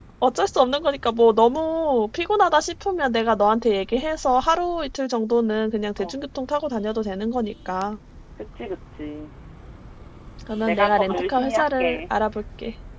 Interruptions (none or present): present